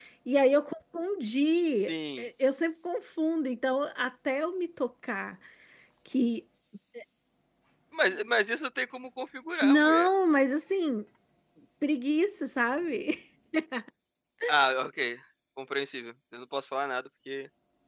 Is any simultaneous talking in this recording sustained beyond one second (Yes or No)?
No